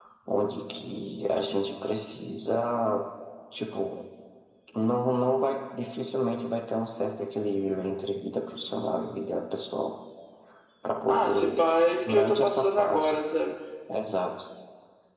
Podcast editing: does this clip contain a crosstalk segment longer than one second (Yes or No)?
Yes